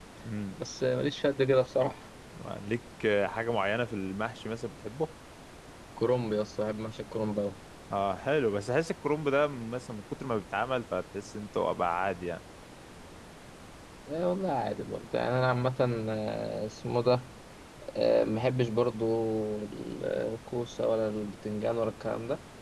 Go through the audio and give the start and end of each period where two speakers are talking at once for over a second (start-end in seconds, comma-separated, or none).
none